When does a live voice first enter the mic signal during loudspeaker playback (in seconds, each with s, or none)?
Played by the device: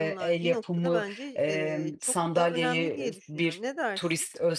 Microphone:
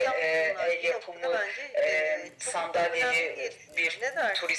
none